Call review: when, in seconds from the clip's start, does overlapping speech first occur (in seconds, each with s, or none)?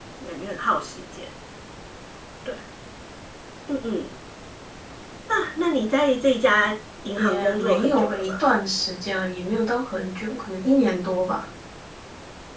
7.2 s